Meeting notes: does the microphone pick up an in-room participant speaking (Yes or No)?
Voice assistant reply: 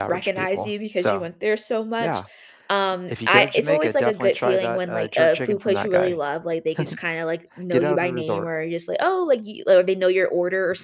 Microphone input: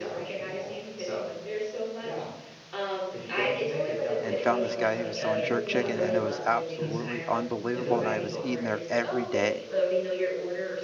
Yes